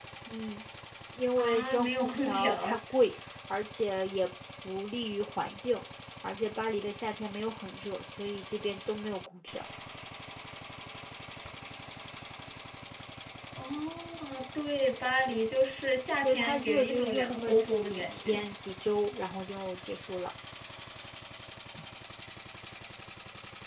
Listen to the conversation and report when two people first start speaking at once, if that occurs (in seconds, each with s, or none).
1.4 s